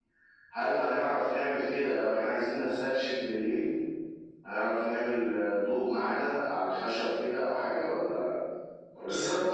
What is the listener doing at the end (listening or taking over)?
taking over